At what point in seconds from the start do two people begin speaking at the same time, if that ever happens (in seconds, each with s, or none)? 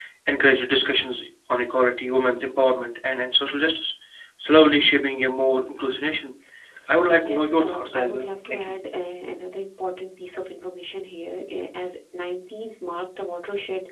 7.2 s